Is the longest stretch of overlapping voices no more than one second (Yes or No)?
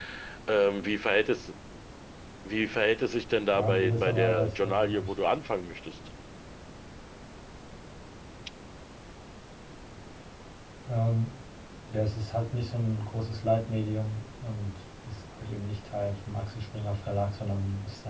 No